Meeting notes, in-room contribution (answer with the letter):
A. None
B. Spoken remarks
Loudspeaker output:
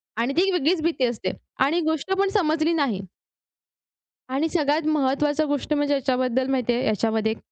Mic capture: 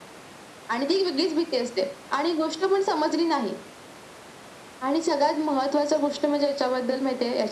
A